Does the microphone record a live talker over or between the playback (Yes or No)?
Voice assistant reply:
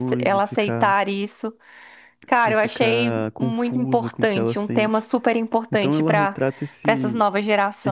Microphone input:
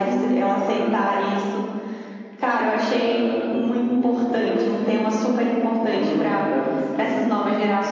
No